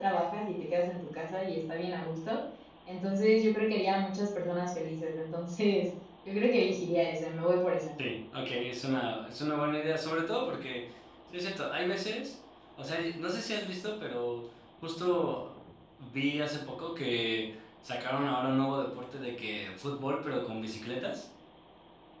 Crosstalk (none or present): none